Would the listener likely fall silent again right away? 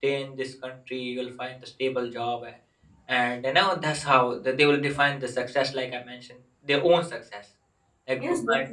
No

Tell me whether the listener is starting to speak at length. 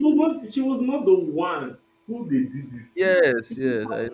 Yes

